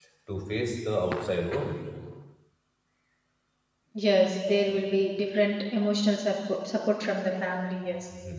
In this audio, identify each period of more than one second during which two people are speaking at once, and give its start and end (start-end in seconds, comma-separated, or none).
none